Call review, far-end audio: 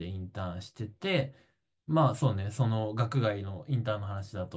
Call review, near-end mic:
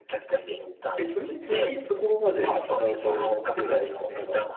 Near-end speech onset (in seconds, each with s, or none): 1.0 s